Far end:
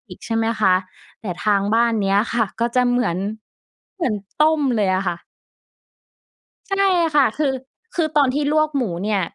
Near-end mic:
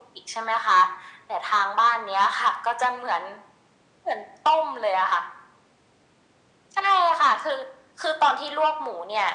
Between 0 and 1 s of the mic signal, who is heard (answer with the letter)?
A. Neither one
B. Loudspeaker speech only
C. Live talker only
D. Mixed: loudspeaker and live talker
B